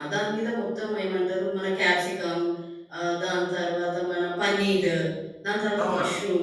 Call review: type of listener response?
taking over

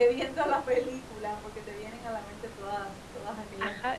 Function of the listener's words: taking over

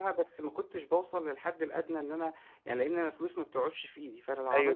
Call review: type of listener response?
taking over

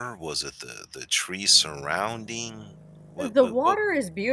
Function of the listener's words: taking over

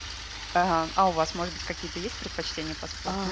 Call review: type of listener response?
taking over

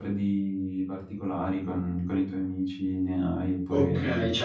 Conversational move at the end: taking over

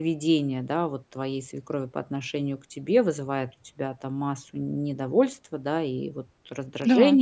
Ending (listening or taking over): listening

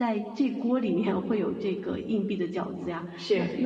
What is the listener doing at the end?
listening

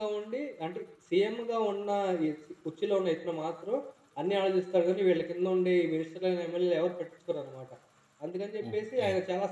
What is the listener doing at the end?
listening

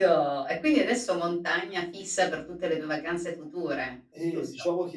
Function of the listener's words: taking over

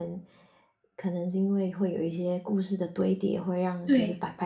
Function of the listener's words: listening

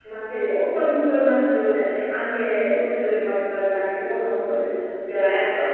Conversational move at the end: taking over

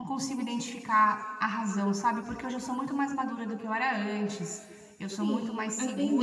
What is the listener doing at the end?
taking over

